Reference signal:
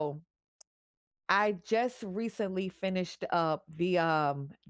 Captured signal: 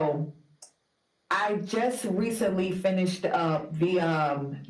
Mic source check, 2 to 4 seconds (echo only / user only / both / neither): echo only